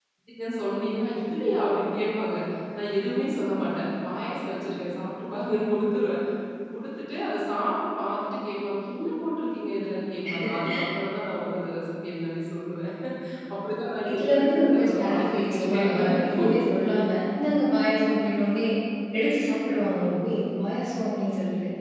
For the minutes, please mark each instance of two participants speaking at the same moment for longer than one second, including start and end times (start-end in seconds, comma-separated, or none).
14.1-16.5